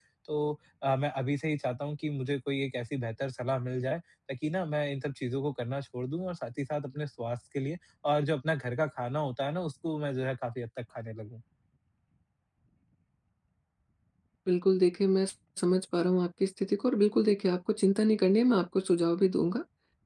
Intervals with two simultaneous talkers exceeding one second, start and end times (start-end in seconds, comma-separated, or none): none